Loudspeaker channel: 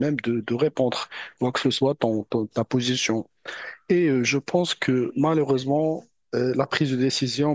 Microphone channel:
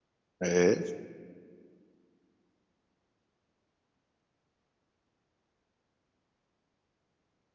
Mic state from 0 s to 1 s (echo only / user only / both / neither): user only